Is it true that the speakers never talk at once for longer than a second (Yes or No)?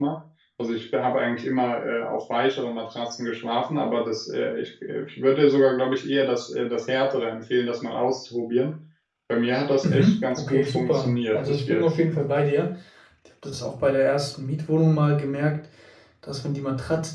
No